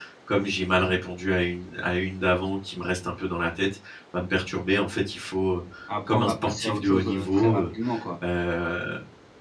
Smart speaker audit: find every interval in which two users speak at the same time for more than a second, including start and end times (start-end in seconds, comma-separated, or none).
6.1-7.6